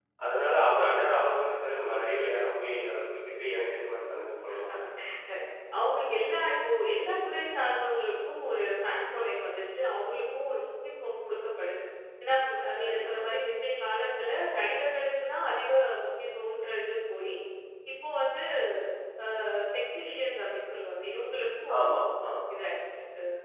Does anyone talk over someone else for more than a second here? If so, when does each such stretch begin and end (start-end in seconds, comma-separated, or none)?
none